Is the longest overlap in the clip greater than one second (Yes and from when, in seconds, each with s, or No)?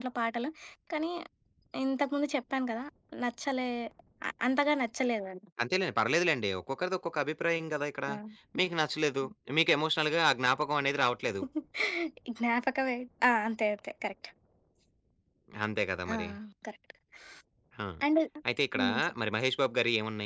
No